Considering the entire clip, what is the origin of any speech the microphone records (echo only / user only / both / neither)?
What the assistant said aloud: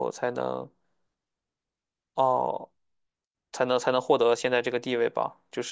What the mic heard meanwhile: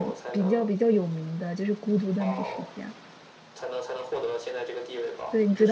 both